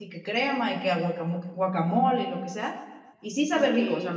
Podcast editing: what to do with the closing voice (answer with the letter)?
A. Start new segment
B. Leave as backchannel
B